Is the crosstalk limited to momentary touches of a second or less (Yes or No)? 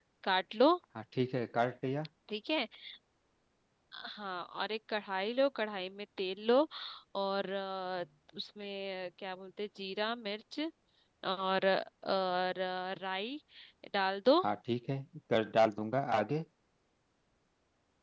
Yes